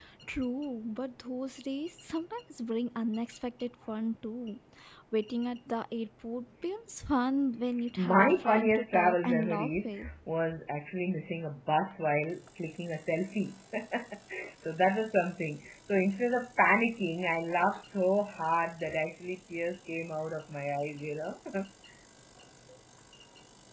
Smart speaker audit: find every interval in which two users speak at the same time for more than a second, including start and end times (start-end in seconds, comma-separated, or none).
8.0-10.1